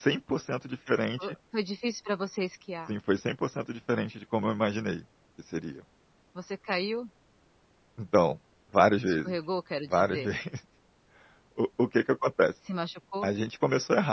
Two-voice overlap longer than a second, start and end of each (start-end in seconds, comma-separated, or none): none